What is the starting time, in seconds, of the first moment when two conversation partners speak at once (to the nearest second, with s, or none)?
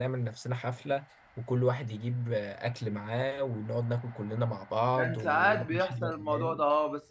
5 s